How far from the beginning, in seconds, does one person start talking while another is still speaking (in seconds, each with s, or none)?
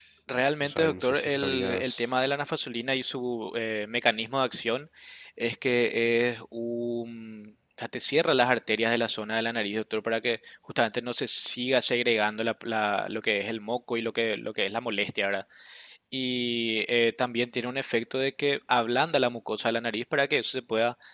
0.6 s